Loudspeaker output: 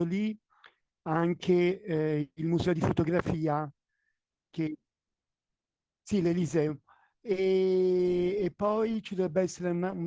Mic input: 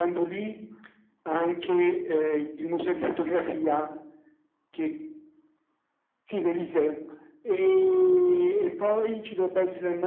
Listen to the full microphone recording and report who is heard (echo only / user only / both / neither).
echo only